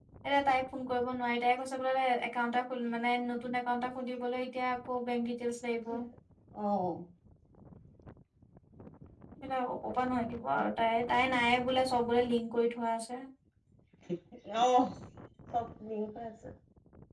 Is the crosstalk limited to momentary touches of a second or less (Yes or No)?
Yes